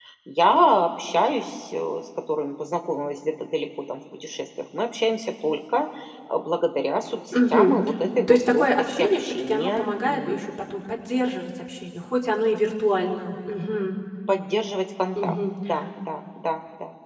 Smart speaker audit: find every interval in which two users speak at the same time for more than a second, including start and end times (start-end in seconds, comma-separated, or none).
8.3-10.4